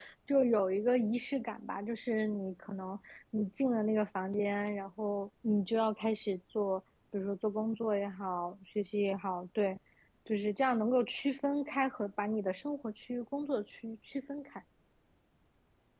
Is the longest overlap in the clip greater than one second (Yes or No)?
No